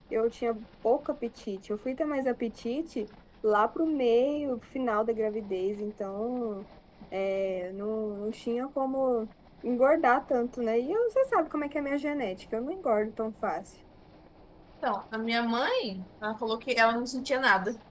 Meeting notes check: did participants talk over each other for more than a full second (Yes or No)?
No